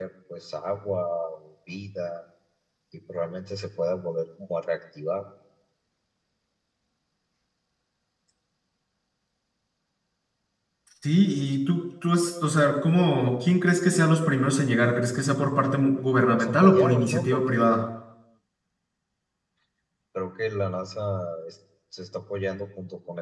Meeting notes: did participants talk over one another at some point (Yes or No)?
Yes